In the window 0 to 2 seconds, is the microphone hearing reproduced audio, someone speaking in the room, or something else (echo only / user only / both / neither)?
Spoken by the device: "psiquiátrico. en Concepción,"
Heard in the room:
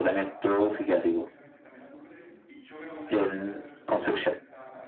both